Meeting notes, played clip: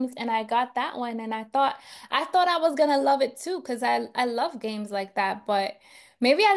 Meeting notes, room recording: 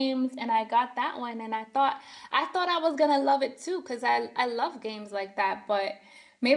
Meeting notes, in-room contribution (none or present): none